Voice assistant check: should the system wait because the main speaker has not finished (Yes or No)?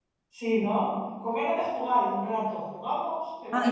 No